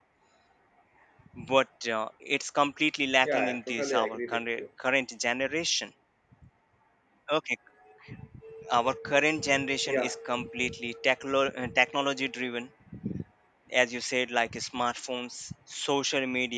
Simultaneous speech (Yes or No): Yes